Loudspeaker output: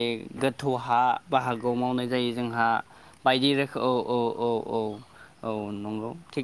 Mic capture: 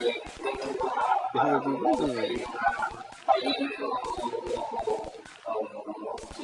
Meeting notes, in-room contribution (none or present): present